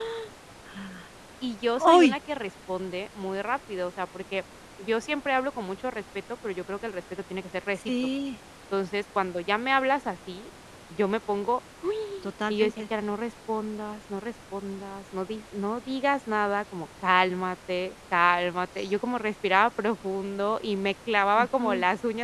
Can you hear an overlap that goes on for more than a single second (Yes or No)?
No